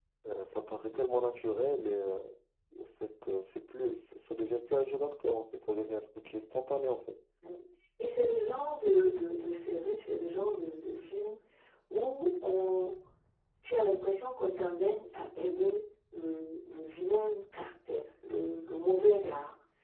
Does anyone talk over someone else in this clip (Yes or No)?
No